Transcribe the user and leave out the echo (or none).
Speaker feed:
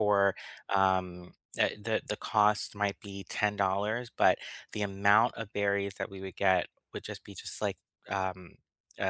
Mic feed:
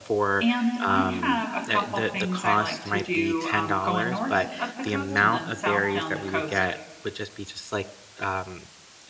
and I have a couple things I like to do um, going north up the coast and then south down the coast.